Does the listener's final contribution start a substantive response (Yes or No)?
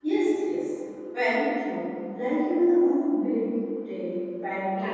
No